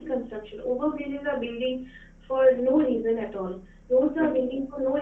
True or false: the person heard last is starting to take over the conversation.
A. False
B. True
A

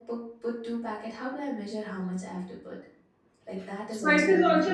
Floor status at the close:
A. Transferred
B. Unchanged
A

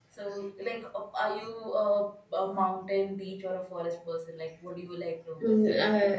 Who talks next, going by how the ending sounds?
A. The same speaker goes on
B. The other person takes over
B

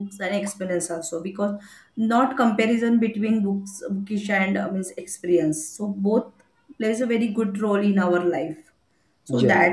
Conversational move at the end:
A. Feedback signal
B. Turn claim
A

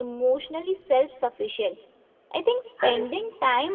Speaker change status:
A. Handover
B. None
B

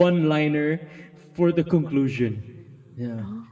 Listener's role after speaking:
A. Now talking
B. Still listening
B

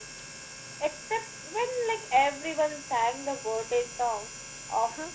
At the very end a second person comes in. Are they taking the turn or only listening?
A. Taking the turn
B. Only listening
A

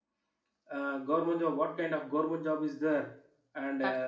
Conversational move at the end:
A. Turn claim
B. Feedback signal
B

